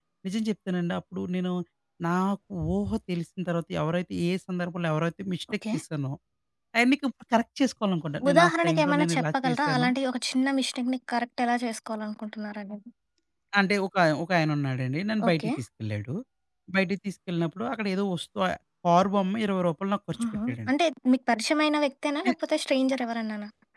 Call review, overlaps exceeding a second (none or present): present